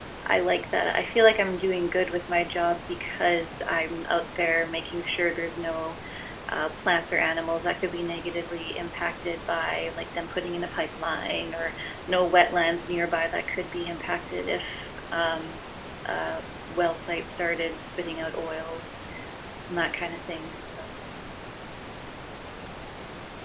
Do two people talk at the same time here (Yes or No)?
No